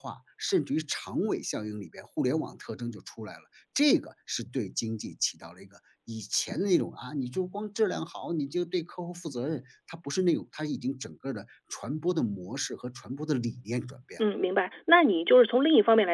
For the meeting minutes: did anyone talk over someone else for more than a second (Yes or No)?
No